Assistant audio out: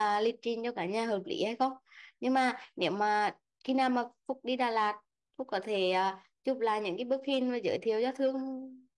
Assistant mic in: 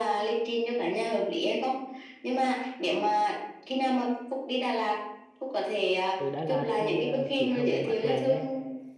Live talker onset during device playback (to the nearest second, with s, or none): 6 s